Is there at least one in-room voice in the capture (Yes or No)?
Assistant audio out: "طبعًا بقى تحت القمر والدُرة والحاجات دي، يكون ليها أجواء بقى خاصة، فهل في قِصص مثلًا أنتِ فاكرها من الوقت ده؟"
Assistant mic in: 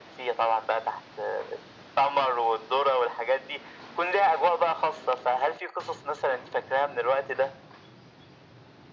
No